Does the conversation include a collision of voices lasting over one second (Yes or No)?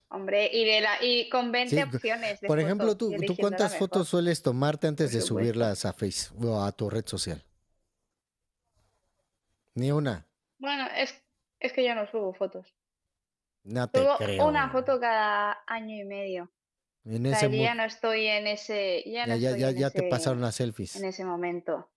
Yes